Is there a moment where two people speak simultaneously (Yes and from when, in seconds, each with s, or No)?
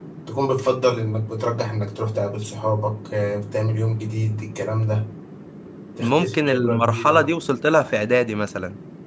Yes, from 6.0 s